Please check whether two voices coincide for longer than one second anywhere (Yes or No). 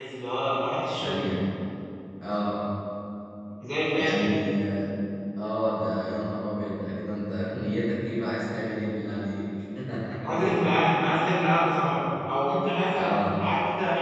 No